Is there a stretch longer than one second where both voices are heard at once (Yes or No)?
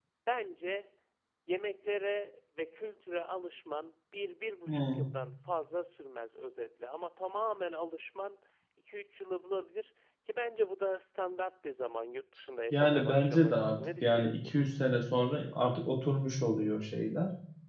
Yes